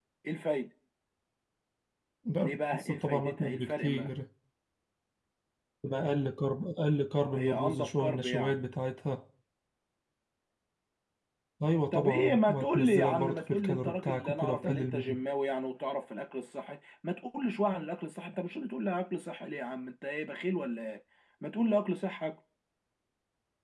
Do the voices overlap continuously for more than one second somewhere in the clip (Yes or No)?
Yes